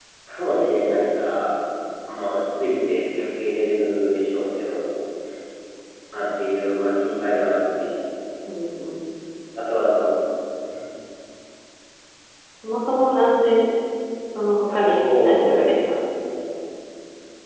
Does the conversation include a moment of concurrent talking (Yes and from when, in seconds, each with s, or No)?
Yes, from 14.6 s